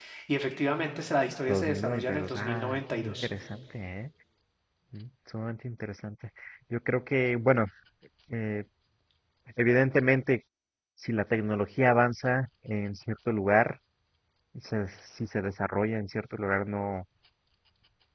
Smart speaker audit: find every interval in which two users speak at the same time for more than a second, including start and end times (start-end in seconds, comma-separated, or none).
1.5-3.3